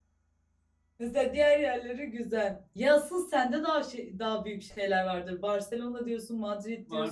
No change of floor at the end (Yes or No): No